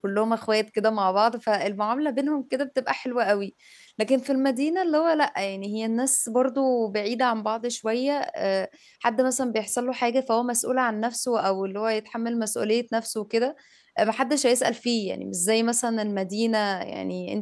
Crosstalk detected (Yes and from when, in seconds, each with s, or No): No